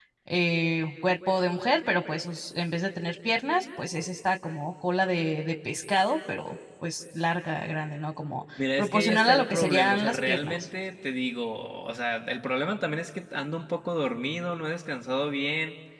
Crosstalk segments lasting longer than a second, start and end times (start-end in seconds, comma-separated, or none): 8.8-10.7